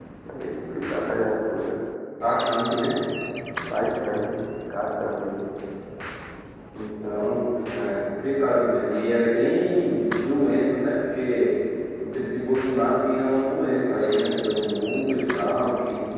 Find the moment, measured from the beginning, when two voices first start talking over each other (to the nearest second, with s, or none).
none